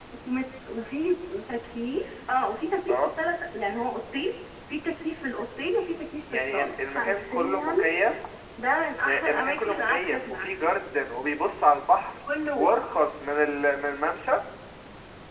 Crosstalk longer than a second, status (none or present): present